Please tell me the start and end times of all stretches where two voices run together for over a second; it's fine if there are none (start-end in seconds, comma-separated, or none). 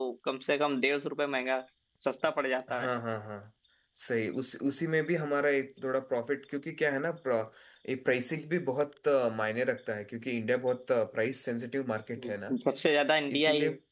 none